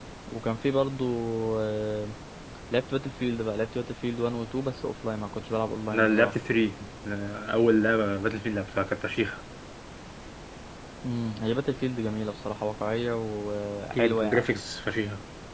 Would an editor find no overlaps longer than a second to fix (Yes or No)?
Yes